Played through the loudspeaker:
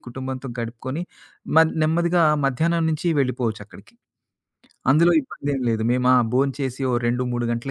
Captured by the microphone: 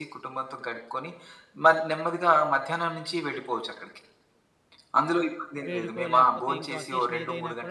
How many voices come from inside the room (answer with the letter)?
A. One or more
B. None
A